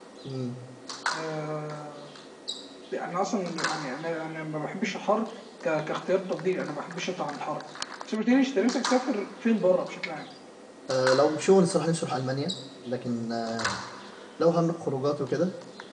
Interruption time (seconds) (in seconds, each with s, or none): none